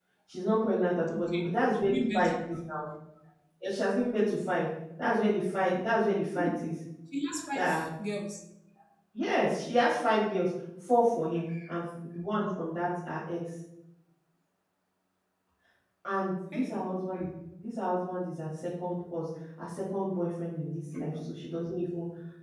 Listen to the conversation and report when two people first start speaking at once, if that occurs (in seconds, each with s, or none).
1.1 s